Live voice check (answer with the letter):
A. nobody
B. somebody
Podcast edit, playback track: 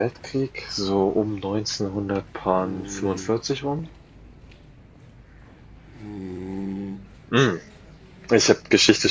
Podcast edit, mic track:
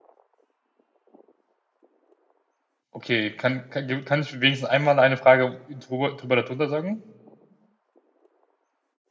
B